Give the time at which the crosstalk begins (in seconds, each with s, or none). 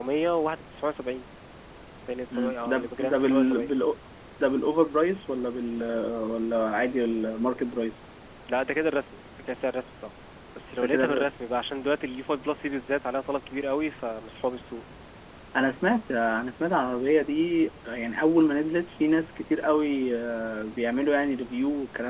2.3 s